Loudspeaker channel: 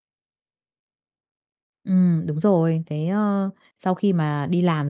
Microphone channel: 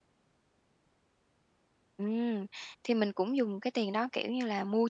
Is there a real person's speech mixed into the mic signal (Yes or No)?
Yes